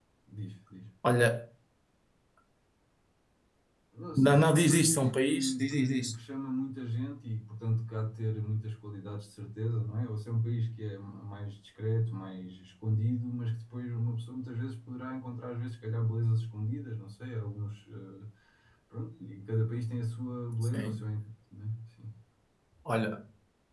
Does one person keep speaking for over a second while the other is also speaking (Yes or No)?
Yes